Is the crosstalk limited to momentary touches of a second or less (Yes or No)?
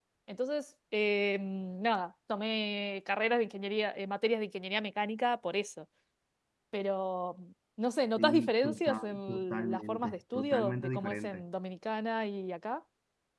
No